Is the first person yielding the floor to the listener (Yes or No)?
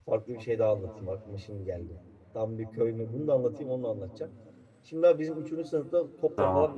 No